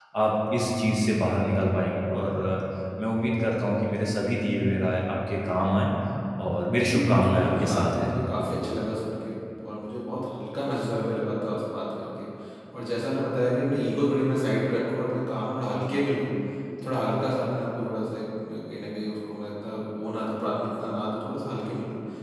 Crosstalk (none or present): present